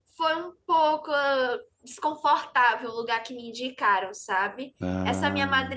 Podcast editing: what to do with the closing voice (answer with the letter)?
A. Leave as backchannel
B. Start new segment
A